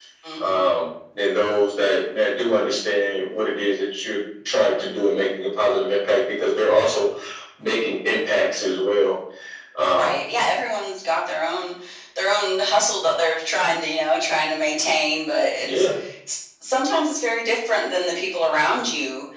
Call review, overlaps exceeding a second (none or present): none